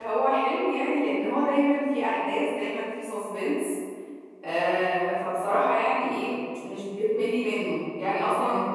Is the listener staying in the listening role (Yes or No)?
Yes